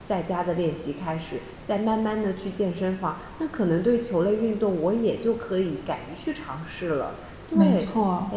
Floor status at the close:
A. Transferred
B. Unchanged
A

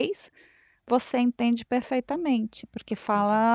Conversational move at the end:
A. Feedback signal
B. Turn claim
A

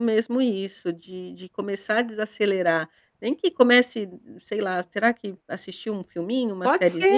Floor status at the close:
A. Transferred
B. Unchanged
A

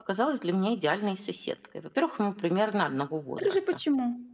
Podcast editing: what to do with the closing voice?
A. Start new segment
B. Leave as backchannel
A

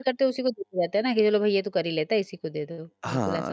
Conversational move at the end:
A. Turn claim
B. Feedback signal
A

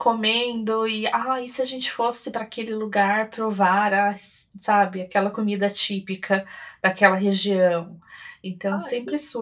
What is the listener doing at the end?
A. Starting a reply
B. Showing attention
B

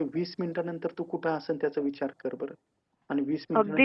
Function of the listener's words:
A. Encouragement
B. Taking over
B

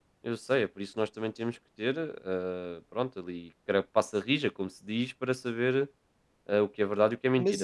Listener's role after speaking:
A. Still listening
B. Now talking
B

